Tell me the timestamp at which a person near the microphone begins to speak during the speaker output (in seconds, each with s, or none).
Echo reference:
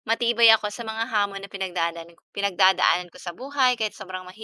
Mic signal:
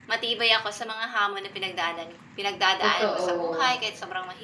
2.8 s